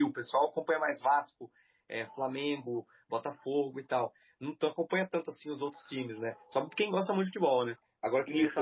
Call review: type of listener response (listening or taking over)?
listening